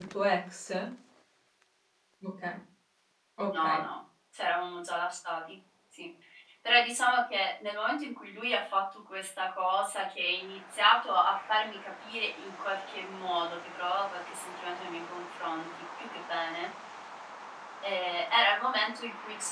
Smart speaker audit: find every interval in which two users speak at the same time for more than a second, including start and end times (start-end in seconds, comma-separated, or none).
none